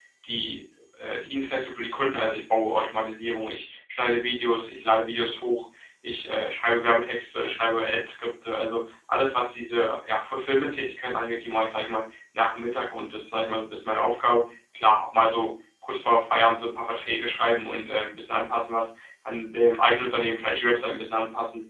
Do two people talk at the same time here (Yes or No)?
No